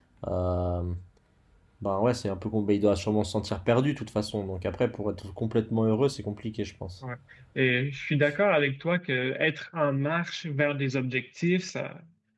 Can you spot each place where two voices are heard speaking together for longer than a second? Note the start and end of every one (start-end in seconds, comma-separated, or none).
none